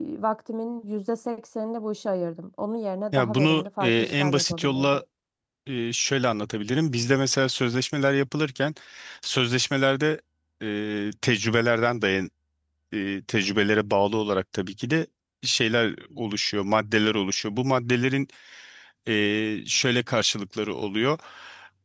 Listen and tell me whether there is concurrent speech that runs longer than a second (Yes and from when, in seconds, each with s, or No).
Yes, from 3.1 s